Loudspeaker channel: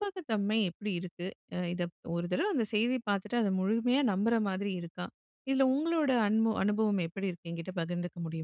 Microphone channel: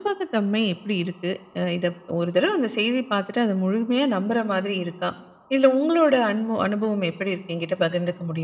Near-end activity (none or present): none